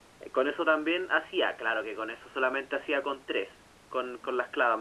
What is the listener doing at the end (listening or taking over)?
listening